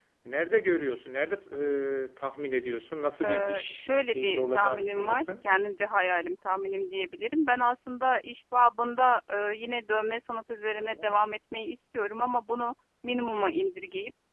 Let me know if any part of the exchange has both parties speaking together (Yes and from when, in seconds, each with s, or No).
Yes, from 3.2 s